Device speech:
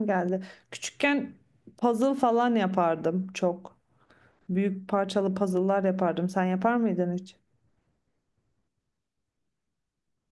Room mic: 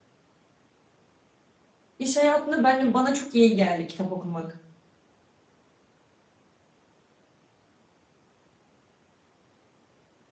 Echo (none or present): none